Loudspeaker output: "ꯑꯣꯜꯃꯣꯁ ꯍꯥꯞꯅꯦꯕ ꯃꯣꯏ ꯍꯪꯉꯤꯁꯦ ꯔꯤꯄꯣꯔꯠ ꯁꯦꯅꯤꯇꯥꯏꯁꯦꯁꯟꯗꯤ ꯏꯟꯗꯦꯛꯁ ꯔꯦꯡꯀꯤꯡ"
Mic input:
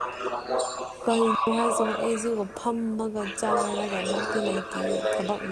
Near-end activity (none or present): present